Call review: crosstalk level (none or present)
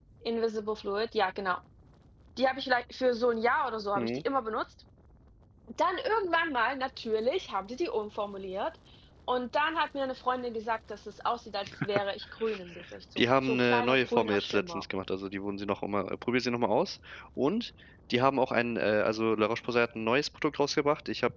present